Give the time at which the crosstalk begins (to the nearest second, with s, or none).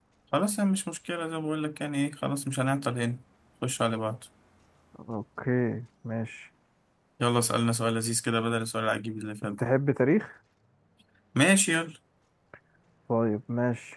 none